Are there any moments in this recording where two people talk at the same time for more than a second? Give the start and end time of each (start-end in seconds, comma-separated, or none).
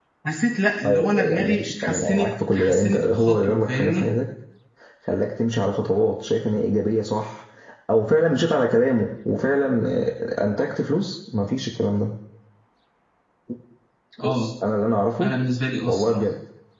0.8-4.0